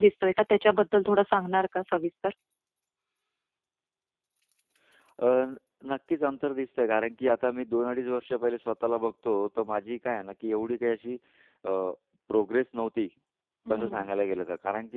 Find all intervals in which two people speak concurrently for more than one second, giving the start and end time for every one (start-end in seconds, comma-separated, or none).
none